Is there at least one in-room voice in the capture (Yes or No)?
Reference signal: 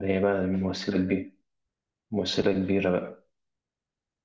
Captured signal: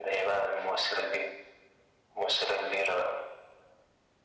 No